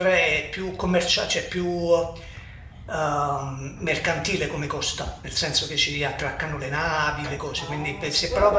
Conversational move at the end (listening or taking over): taking over